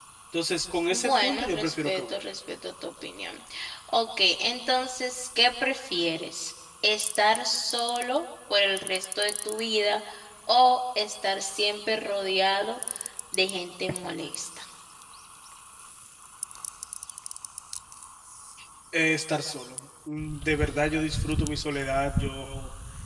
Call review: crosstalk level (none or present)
present